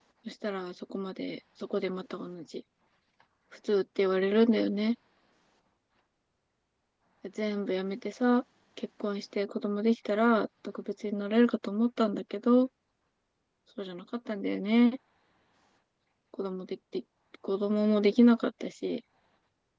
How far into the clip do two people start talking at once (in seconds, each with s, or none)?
none